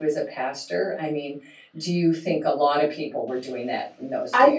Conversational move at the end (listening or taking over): taking over